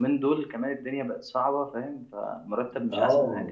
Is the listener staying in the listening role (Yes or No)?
No